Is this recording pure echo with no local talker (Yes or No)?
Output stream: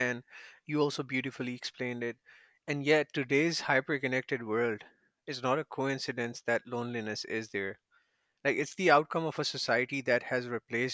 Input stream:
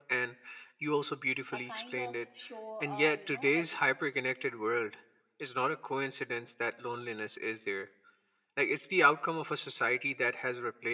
No